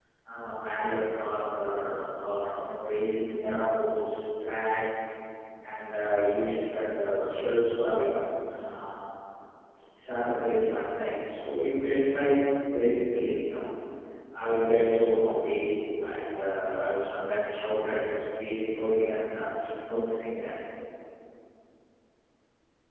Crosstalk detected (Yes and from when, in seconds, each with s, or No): No